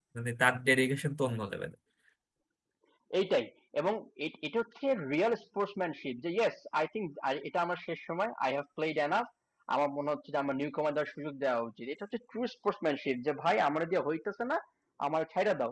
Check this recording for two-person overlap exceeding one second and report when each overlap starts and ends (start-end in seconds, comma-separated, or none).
none